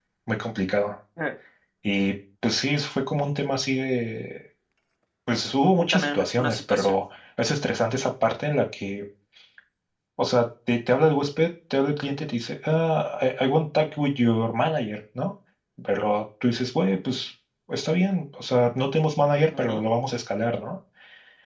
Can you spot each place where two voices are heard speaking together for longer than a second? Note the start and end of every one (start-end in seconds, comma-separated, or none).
5.8-7.0